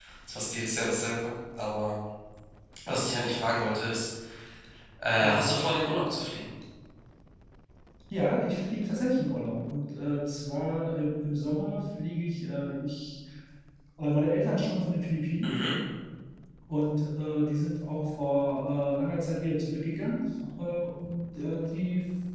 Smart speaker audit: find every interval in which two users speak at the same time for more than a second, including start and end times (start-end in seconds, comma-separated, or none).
none